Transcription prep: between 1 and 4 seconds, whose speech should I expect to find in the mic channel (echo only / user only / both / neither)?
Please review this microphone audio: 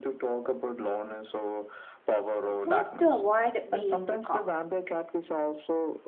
both